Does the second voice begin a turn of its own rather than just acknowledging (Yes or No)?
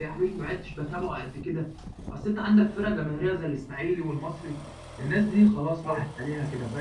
No